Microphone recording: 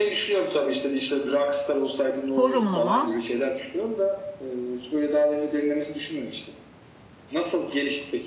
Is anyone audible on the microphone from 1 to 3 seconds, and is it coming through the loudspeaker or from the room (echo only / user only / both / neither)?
both